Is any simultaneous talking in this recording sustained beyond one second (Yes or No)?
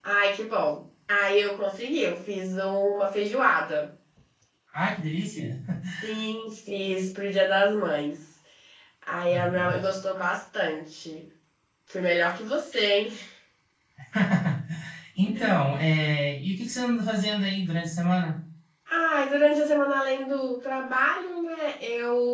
No